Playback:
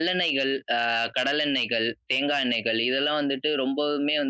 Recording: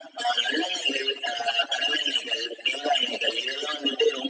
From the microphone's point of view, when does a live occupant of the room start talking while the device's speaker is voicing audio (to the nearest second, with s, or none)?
none